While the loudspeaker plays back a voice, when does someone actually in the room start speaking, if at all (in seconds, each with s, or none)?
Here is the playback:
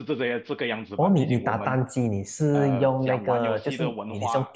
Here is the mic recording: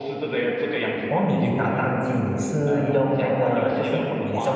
none